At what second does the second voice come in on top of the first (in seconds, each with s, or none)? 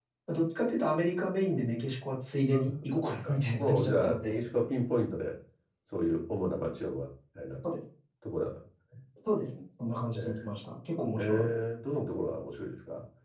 2.5 s